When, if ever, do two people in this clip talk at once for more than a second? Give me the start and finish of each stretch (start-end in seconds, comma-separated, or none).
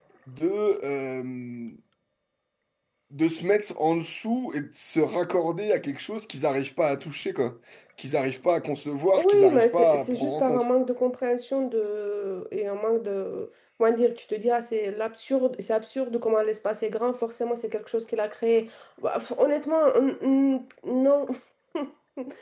9.2-10.6